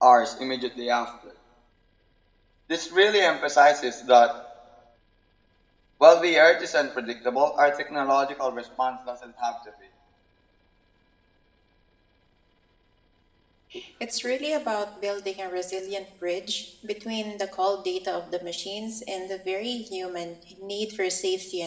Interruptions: none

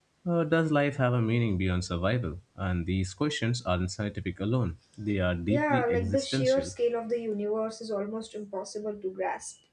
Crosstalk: present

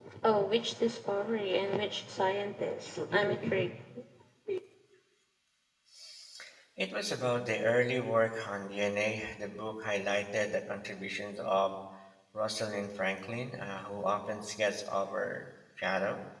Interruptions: none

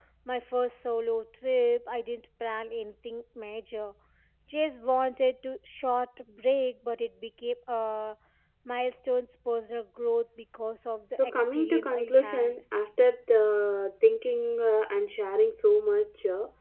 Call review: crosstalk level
present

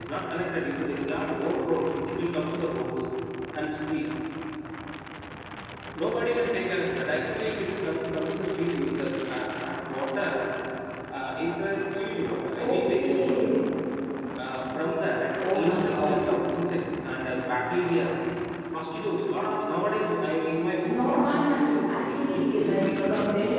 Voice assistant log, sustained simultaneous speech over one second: present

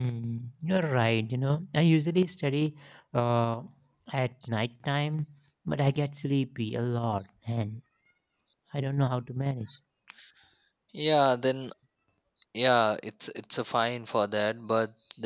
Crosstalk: none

